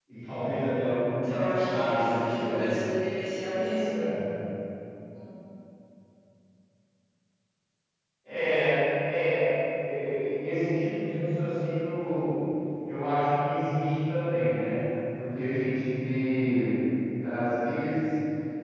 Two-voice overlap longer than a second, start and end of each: 1.2-2.6

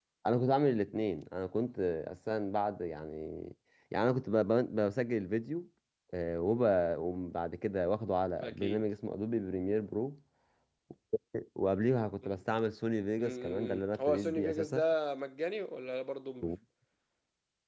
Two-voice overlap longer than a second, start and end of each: 13.2-14.8

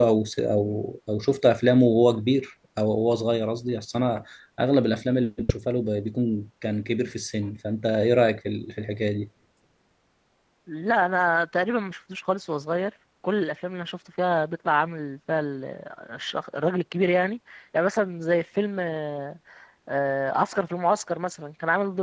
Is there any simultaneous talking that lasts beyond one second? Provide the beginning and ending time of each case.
none

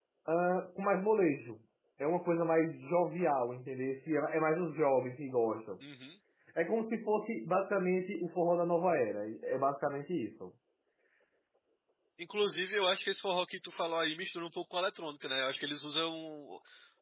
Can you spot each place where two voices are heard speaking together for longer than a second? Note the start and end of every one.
none

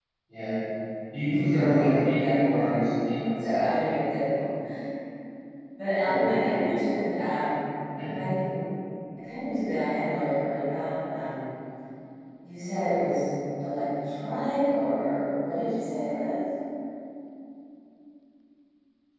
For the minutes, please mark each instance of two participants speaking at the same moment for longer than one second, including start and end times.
1.5-2.9

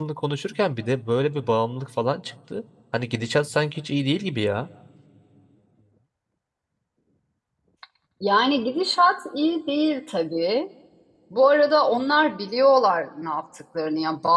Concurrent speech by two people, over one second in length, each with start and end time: none

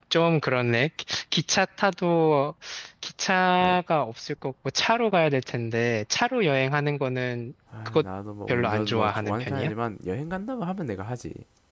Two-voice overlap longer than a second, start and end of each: 8.5-9.7

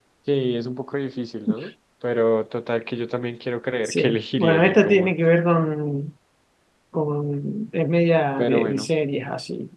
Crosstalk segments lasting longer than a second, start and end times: 3.9-5.1

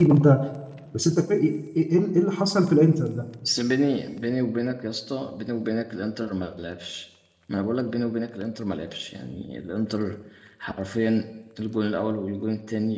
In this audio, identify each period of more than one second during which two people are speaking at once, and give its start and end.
none

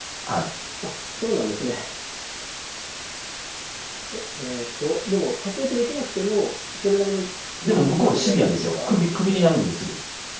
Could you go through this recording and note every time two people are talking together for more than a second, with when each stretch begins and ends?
7.6-9.5

